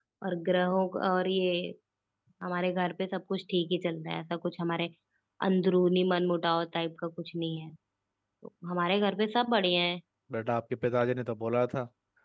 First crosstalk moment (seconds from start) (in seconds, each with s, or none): none